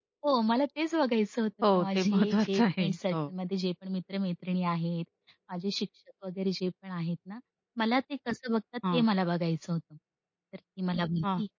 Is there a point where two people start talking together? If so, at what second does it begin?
2 s

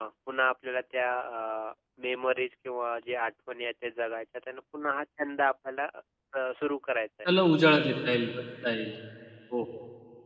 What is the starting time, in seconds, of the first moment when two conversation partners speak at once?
none

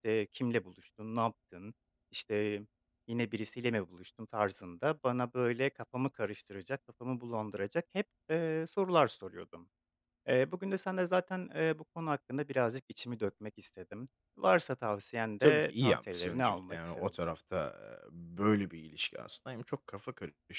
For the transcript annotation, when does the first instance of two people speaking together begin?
15 s

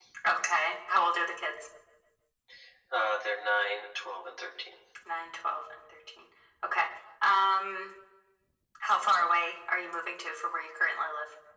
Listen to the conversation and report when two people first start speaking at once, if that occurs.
none

